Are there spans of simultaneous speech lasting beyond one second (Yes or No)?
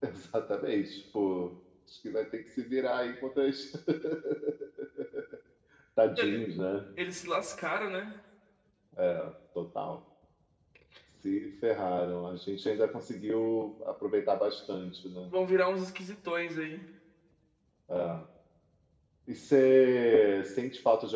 No